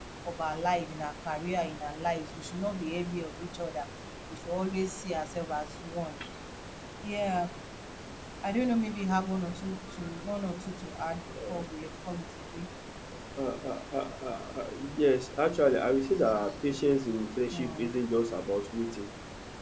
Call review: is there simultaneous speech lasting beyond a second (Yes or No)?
No